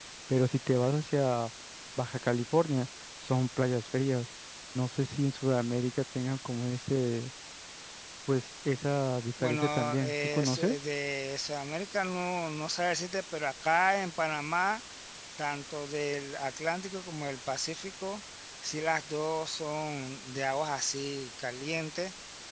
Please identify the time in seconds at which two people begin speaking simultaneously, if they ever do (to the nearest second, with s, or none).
9 s